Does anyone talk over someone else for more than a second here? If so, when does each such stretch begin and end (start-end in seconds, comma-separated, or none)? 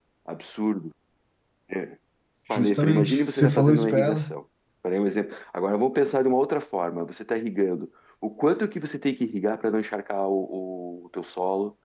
2.5-4.3